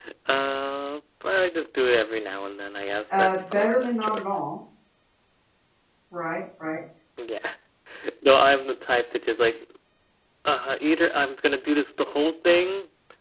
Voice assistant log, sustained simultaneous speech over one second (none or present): present